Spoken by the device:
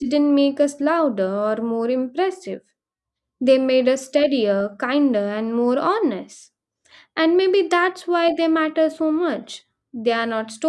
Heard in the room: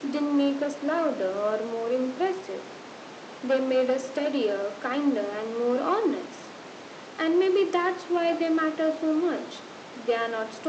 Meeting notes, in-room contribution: none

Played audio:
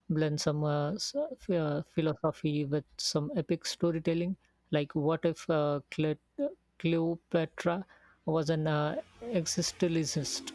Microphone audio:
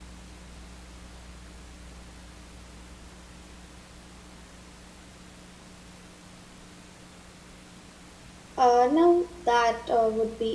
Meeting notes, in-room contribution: present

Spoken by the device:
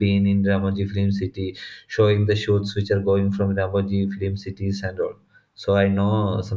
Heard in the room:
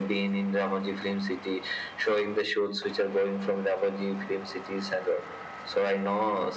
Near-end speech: none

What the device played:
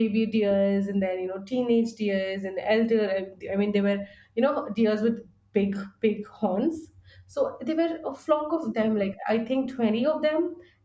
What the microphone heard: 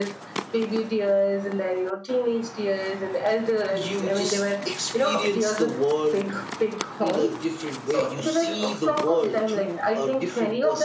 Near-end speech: present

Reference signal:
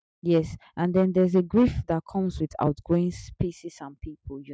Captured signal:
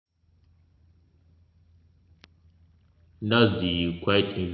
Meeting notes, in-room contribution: present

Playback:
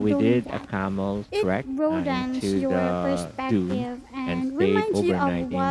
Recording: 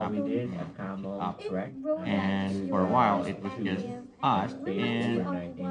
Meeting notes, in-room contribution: present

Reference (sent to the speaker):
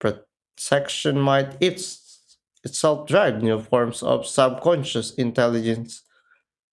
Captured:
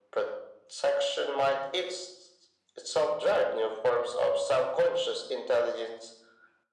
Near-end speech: none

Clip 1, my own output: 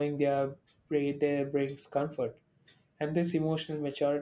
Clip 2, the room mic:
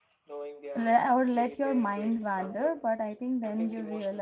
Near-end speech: present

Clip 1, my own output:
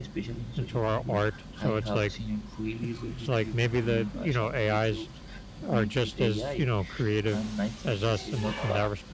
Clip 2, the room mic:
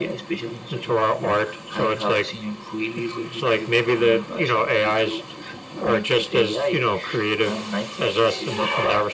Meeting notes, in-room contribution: none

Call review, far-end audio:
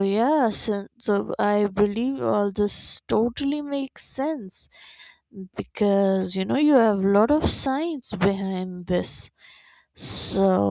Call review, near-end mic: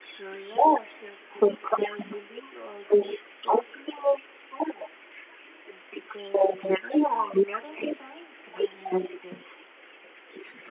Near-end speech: none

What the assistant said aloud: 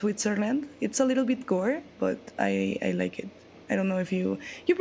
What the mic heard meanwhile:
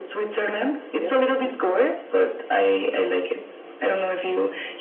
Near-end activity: present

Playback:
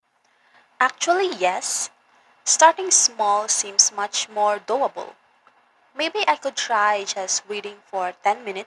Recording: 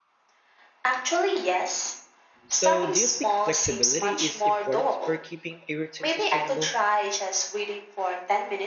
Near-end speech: present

